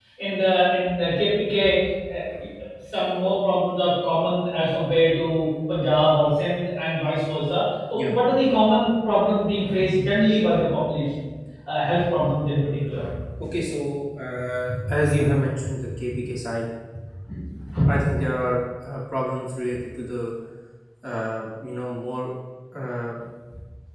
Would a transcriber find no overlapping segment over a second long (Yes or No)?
Yes